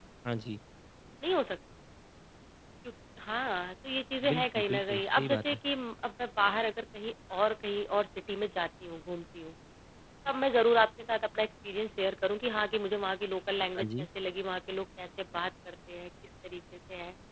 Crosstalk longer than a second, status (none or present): present